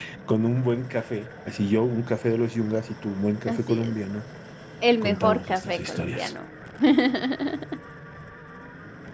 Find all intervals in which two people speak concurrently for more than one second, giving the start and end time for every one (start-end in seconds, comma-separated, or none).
5.0-6.3